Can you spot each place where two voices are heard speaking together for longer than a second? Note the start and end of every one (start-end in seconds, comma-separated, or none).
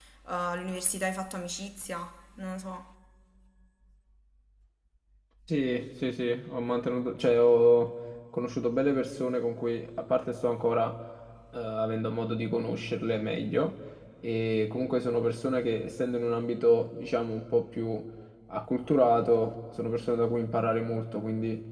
none